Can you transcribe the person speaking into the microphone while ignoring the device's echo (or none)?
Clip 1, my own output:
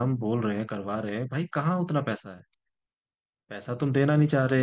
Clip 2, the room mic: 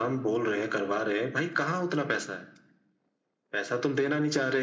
none